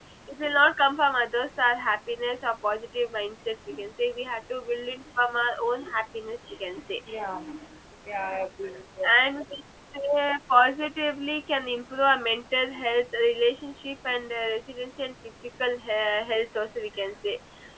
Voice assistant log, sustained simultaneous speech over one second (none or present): none